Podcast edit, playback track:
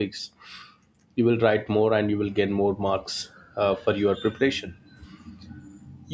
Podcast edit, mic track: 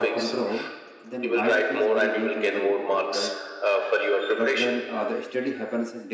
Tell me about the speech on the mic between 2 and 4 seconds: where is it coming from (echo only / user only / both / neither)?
both